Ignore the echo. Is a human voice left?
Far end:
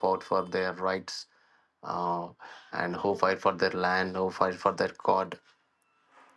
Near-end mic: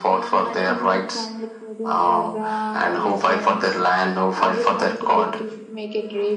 Yes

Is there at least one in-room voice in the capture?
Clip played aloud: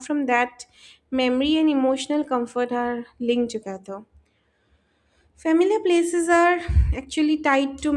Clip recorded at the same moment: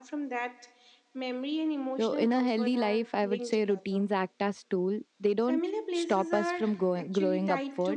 Yes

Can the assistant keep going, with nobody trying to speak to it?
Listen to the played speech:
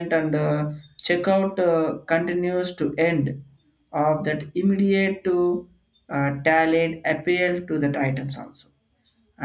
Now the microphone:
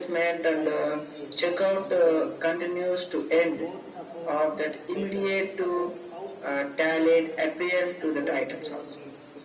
No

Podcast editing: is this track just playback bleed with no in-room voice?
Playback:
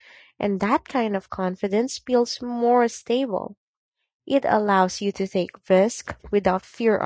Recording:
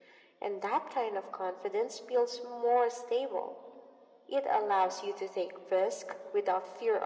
Yes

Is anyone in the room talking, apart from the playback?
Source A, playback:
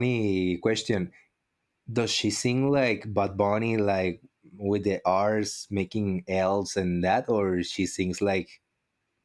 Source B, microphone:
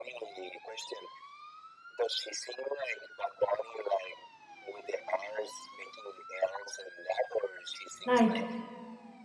Yes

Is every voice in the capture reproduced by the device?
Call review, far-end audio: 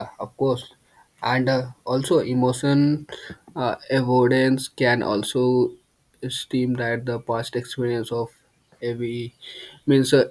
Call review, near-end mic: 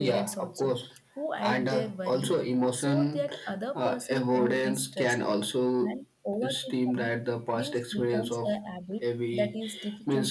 No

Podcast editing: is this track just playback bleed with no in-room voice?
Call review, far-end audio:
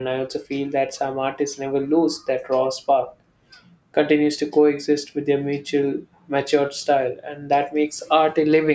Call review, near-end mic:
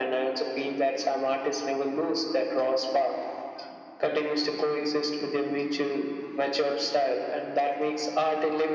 Yes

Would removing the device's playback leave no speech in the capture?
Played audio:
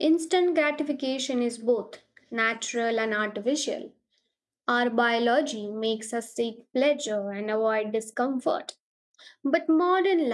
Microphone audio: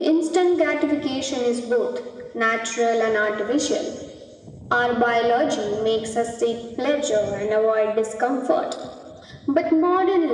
Yes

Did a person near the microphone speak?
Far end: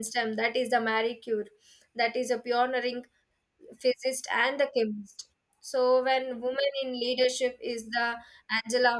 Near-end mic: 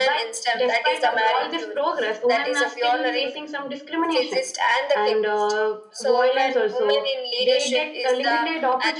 Yes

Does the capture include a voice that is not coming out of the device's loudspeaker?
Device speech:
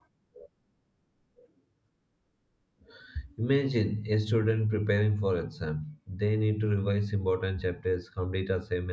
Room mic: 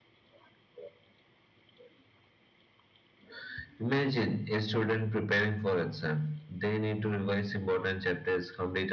No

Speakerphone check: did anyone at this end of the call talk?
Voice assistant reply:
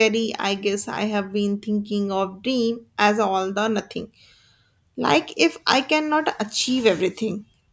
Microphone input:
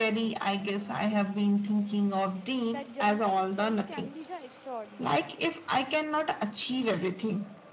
Yes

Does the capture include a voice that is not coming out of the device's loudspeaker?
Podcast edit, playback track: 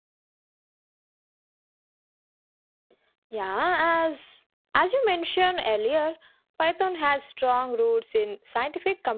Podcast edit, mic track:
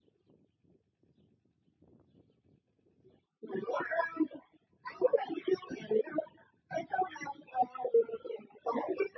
No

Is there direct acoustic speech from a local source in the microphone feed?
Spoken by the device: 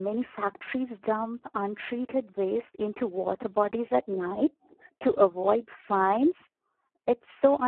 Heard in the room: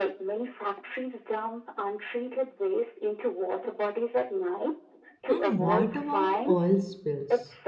Yes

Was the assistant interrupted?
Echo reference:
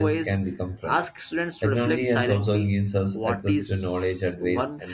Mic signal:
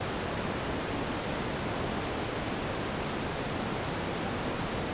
No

